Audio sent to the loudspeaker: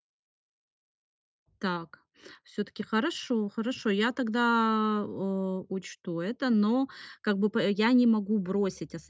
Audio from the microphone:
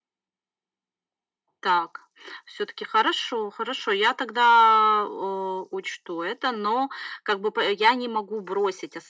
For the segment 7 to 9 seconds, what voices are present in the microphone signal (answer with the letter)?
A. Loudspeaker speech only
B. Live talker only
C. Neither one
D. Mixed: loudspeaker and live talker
A